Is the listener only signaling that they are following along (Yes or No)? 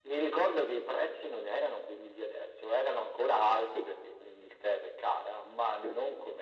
Yes